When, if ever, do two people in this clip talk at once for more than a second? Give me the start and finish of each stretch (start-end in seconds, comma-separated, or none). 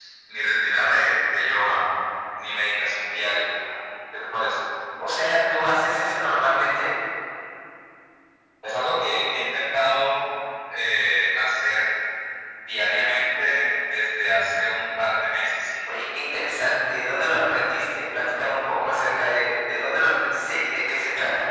none